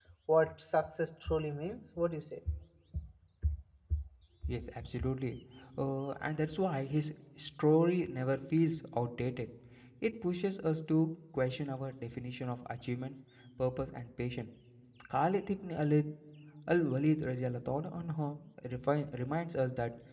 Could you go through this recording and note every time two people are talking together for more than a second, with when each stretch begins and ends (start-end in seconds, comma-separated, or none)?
none